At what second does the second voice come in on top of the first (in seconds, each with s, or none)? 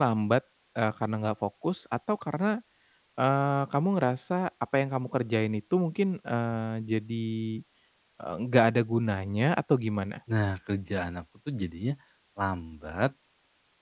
none